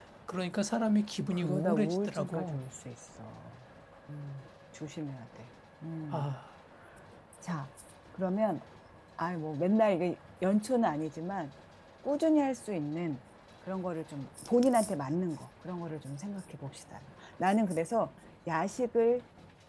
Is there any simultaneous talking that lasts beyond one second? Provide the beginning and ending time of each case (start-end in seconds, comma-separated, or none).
1.3-2.6